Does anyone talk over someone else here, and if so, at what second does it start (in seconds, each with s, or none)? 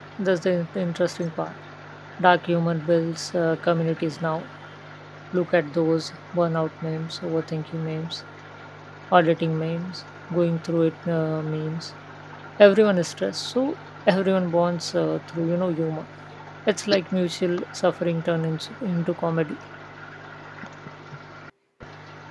none